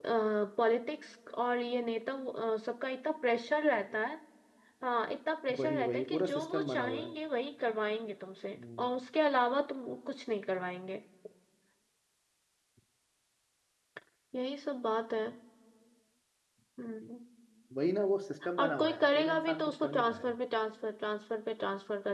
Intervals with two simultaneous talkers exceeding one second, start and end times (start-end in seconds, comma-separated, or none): 5.6-7.1, 18.6-20.3